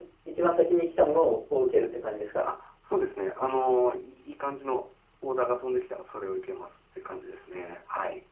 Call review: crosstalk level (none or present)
none